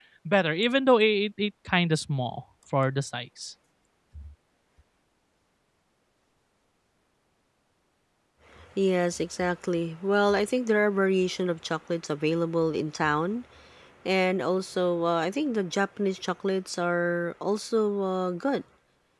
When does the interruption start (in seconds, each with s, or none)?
none